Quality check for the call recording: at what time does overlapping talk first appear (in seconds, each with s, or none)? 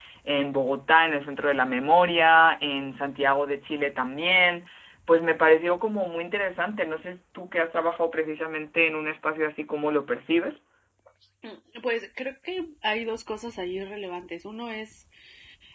none